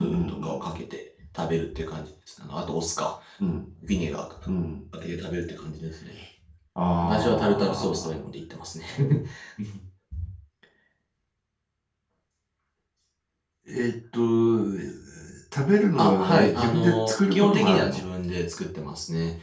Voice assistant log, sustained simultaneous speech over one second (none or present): present